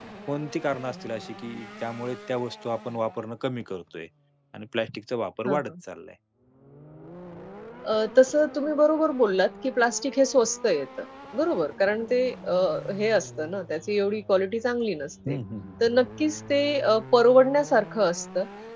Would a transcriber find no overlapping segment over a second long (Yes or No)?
Yes